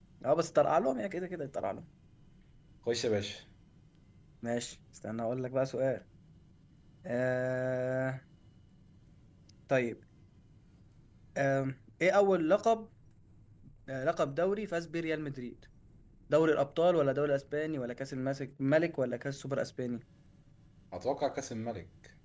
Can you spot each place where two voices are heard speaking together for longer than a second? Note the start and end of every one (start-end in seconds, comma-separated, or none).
none